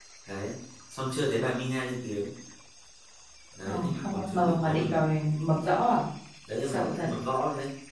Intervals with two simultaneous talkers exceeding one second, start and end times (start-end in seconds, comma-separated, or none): 3.6-5.0